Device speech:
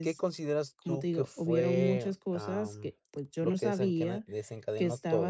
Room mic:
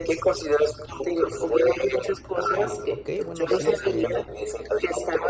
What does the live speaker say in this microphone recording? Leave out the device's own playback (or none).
Eh, okey, bueno, sí, em,